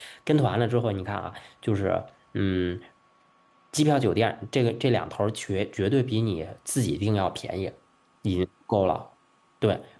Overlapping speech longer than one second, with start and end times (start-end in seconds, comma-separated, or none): none